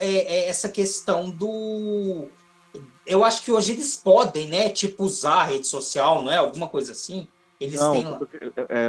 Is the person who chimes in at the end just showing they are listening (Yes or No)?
No